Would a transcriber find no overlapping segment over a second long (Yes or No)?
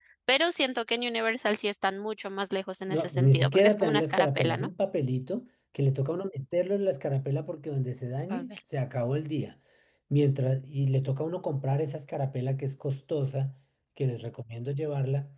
No